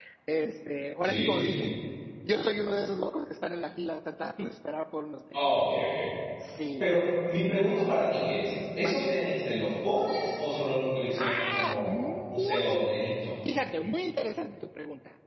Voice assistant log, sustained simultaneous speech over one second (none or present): present